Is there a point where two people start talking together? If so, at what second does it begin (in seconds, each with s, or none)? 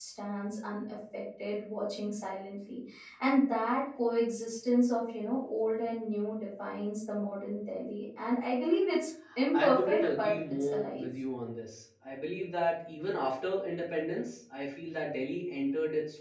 9.5 s